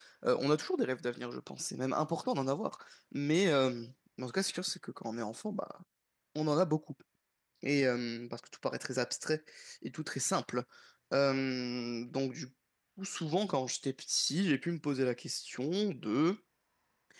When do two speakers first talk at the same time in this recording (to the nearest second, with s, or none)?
none